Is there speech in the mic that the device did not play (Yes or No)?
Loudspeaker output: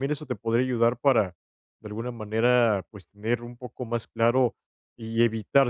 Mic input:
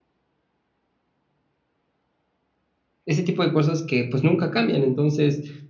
Yes